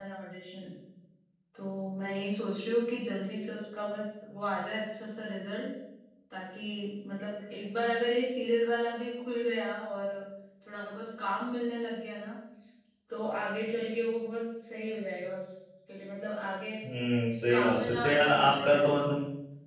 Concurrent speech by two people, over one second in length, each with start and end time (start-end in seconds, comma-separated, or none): 17.5-19.0